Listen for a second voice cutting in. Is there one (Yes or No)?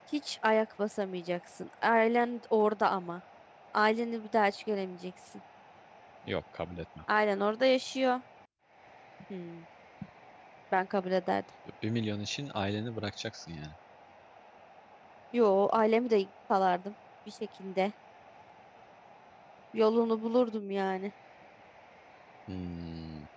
No